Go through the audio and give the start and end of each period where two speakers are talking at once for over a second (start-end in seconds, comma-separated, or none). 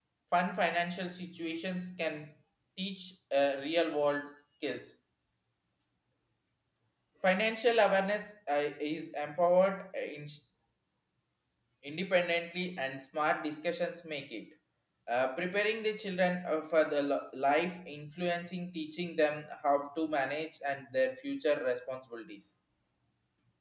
none